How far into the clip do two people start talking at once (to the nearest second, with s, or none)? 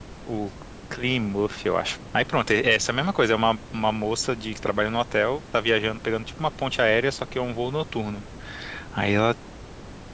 none